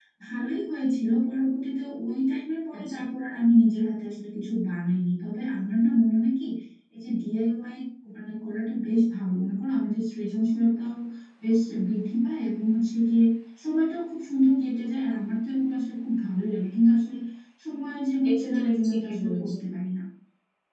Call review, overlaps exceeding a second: present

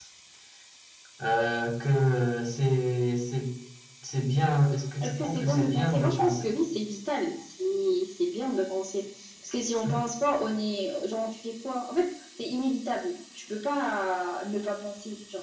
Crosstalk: present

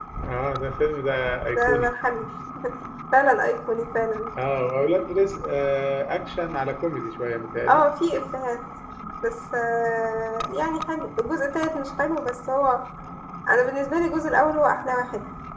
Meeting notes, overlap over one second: none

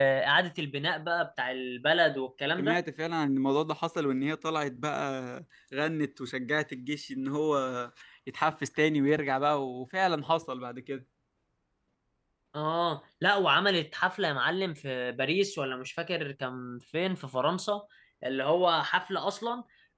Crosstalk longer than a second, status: none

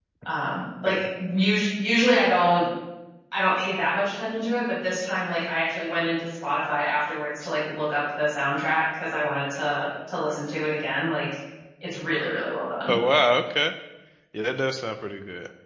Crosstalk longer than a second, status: none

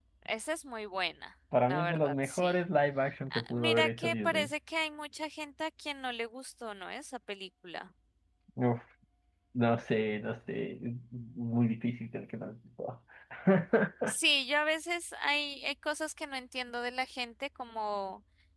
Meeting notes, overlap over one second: present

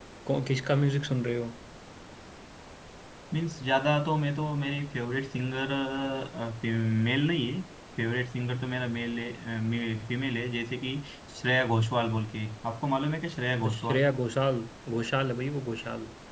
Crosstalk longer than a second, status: none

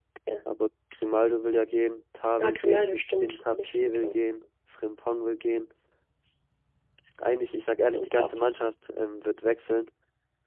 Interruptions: present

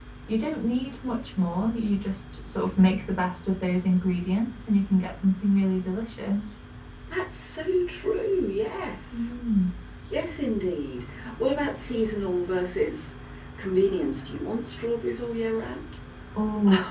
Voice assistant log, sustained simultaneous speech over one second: none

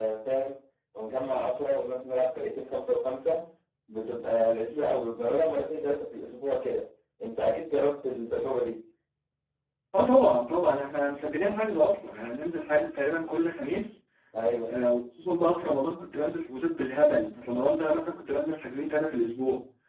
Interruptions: none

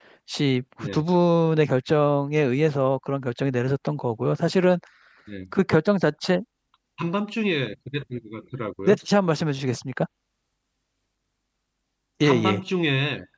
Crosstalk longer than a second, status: none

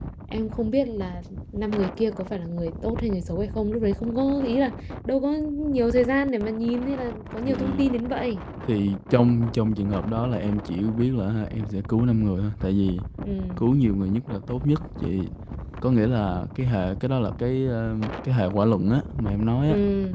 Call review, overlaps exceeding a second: none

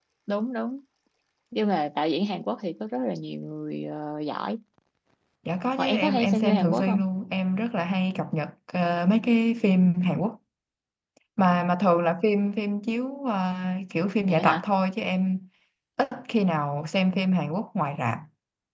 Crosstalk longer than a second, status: present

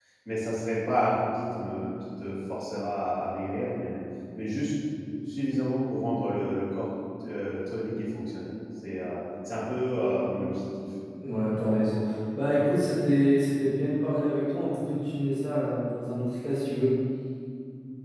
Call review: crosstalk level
none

